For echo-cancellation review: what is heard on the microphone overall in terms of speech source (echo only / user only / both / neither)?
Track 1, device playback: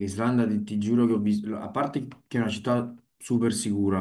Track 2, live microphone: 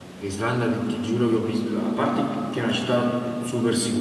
echo only